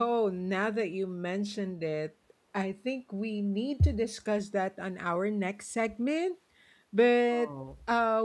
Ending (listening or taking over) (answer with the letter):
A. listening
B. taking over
A